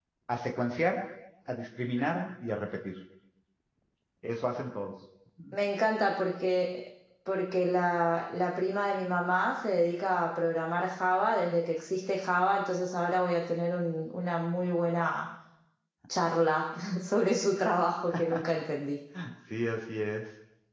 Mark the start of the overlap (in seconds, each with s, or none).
none